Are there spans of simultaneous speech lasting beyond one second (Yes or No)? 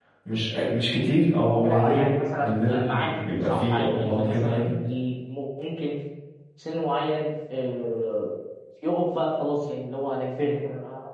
Yes